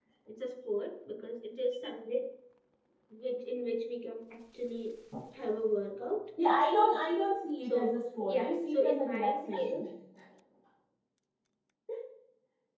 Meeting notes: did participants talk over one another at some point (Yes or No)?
Yes